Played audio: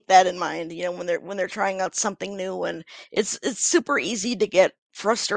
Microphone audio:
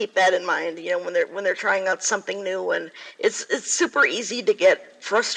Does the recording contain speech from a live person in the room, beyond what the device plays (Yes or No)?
No